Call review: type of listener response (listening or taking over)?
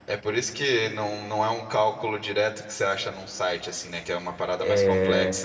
taking over